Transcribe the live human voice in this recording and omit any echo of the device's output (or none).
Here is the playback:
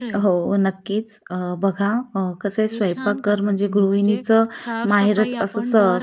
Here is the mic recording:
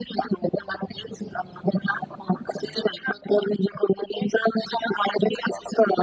none